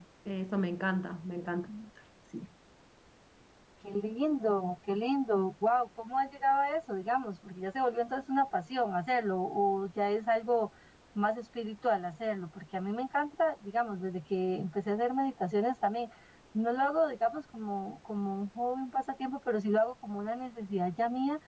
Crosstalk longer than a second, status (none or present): none